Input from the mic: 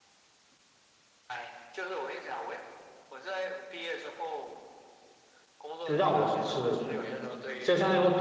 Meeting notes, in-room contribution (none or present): present